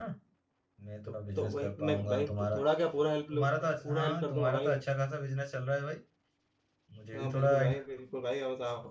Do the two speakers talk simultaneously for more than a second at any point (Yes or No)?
Yes